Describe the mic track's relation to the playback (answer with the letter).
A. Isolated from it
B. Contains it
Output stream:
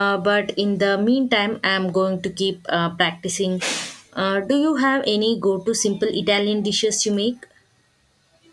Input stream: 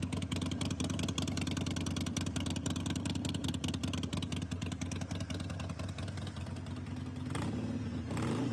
A